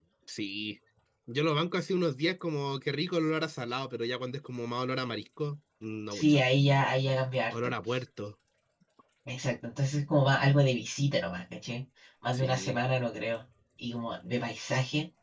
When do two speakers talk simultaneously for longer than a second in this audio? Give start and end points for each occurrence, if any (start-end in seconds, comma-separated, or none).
none